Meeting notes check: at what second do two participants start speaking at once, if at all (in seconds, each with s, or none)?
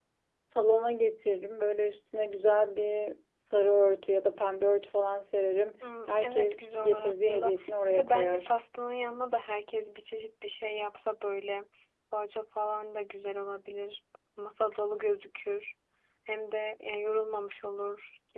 5.8 s